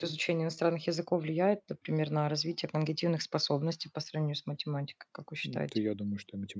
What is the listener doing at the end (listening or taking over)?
taking over